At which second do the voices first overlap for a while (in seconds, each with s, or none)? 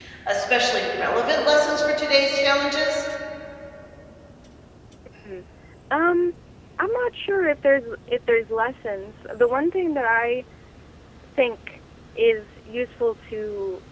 none